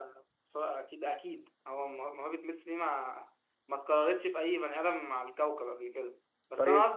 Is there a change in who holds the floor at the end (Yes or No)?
No